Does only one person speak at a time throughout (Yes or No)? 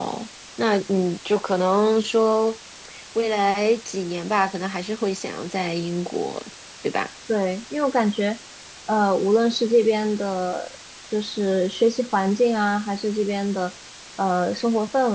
Yes